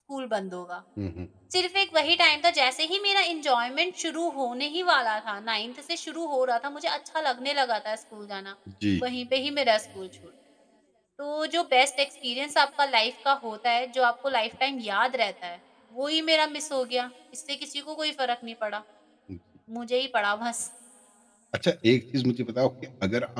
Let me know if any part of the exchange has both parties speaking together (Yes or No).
No